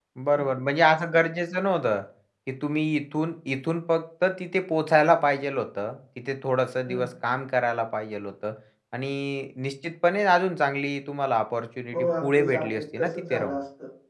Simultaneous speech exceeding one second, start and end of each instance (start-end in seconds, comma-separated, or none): 11.9-13.6